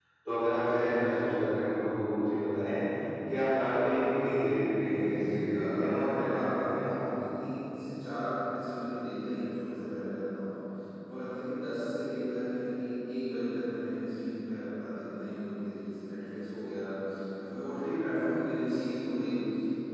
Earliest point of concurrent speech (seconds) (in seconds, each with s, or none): 4.9 s